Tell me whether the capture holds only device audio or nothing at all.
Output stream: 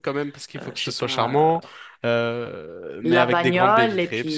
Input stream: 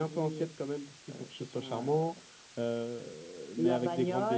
Yes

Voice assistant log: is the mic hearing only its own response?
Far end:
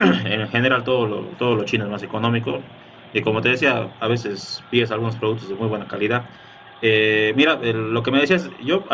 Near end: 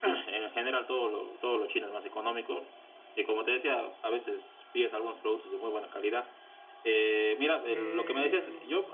No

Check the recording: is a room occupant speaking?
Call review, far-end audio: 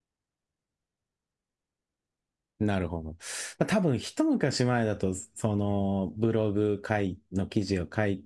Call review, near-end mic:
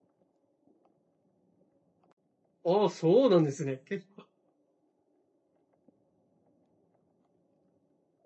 Yes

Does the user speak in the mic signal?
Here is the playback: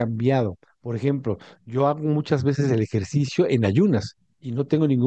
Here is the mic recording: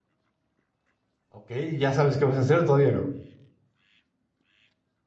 Yes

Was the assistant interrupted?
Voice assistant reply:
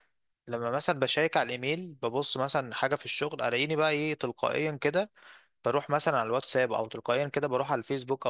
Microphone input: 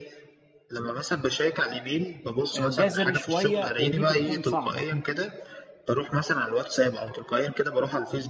Yes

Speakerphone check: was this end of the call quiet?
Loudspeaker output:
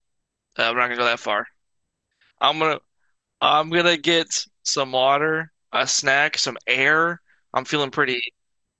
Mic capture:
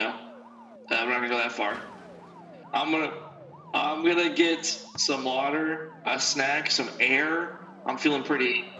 Yes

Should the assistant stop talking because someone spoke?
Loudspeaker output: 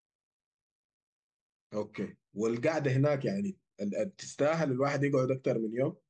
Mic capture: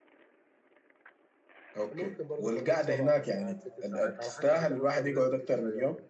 Yes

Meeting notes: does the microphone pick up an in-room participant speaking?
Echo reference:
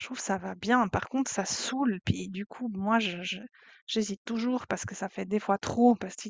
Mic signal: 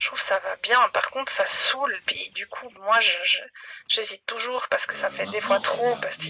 Yes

